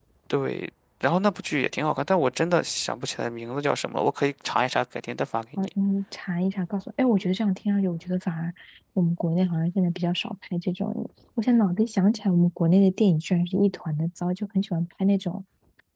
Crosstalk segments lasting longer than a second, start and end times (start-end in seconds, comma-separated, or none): none